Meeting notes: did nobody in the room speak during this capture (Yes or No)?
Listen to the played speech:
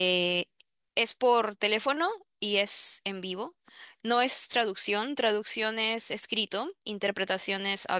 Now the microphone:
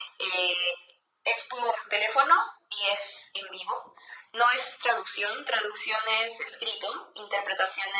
Yes